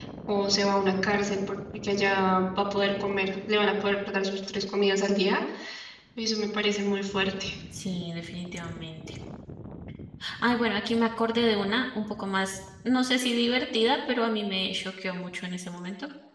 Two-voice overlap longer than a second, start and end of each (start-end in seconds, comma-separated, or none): none